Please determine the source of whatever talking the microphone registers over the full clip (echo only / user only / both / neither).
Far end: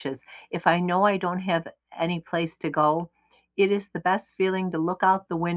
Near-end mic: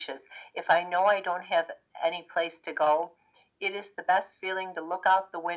echo only